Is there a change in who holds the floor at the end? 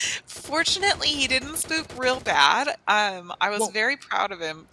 No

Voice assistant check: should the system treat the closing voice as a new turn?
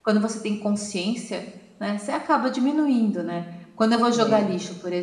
No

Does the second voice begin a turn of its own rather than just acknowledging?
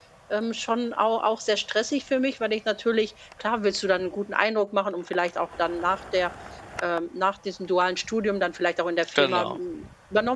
No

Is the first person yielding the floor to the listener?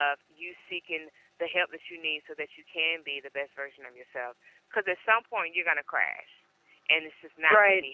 No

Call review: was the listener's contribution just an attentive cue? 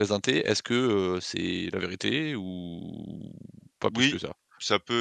No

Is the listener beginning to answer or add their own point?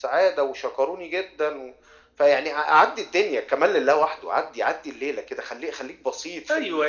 Yes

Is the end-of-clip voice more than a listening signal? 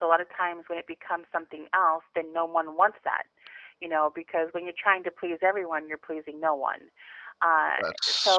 No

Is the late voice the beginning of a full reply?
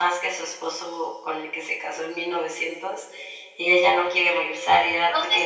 Yes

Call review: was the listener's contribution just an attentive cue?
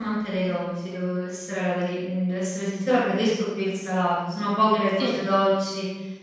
Yes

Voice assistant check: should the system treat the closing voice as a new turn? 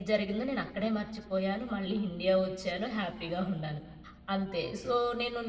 No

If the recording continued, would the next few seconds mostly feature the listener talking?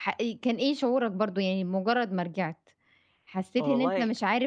No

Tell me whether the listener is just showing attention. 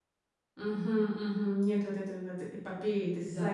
No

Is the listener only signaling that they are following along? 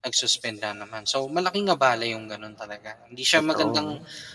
Yes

